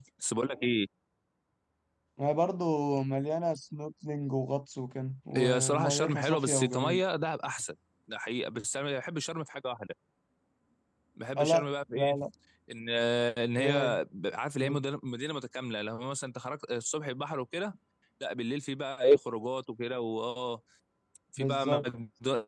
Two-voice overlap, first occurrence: 5.4 s

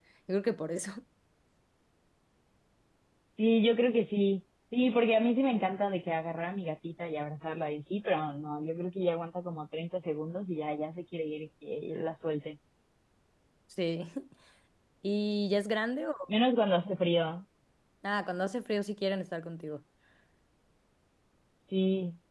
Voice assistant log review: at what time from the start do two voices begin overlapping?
none

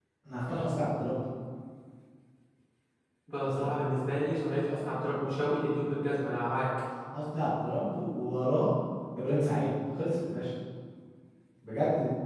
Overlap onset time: none

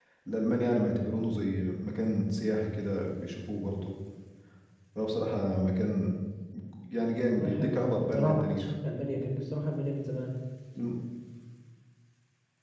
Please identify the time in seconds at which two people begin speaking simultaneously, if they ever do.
7.4 s

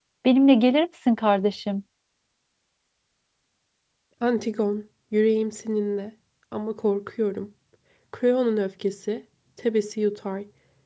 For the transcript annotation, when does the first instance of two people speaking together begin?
none

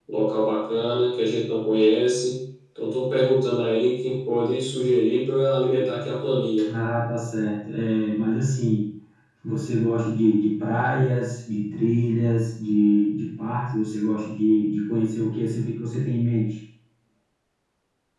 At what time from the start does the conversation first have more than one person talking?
none

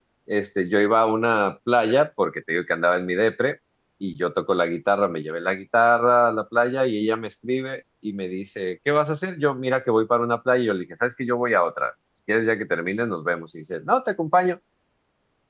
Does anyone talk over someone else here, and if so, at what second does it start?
none

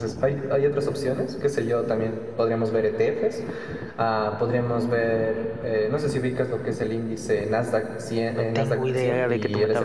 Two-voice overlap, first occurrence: 8.3 s

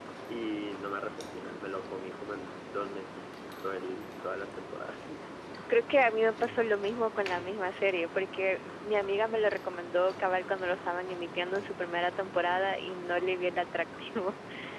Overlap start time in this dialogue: none

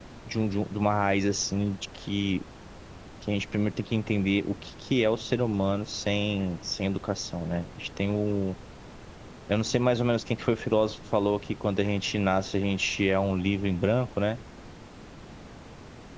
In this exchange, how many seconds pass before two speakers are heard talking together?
none

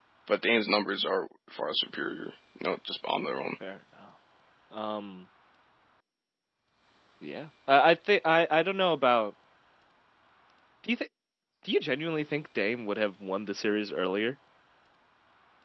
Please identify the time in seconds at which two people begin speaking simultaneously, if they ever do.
none

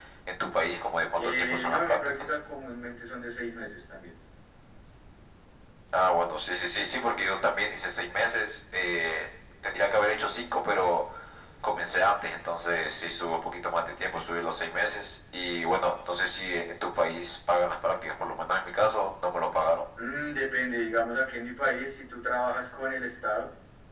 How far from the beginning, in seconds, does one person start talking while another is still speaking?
1.1 s

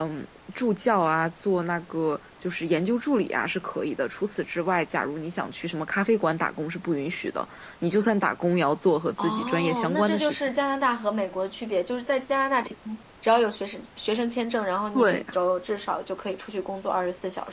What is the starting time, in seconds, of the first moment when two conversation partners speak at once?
9.2 s

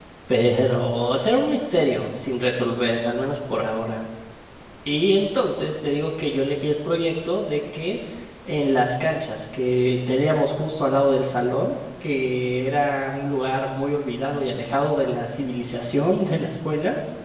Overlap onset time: none

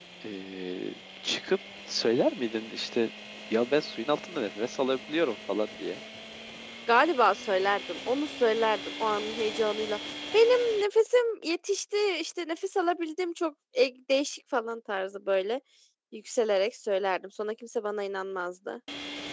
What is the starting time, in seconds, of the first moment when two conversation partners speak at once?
none

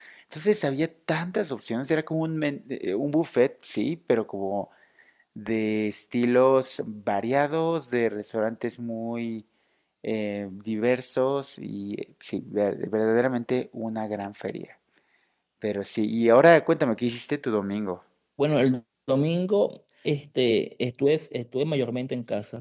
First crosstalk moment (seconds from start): none

